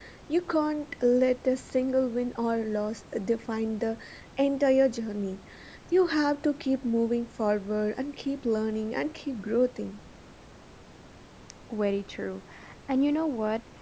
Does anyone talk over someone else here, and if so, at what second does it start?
none

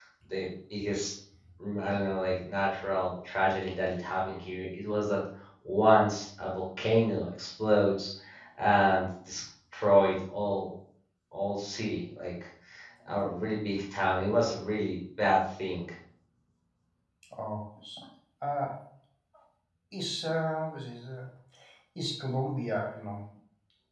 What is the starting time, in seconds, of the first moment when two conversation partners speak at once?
none

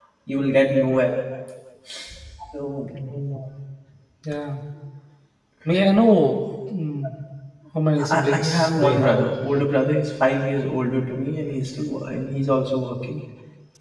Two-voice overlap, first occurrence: 8 s

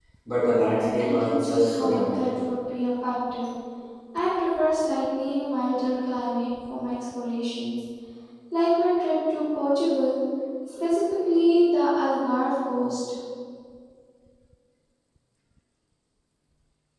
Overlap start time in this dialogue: 1 s

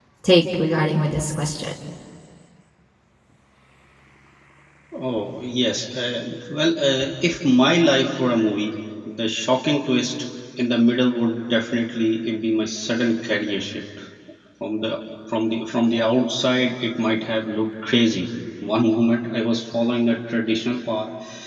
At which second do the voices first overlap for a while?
none

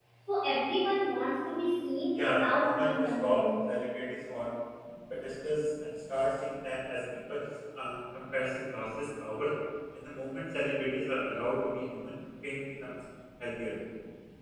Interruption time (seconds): 2 s

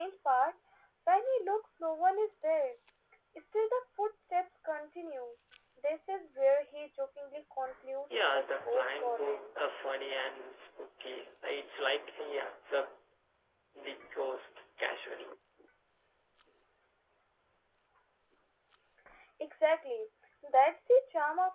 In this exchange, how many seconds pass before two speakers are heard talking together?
8 s

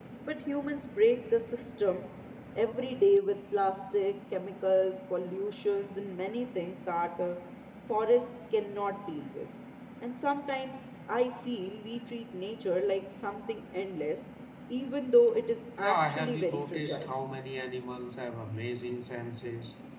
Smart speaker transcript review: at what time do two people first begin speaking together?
16 s

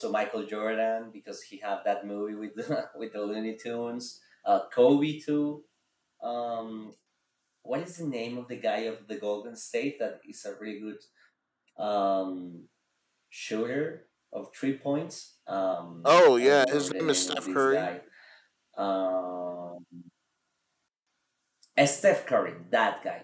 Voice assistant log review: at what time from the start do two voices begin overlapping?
16 s

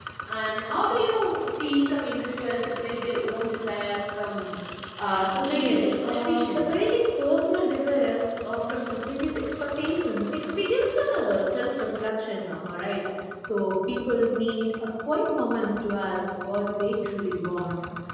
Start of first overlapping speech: 6 s

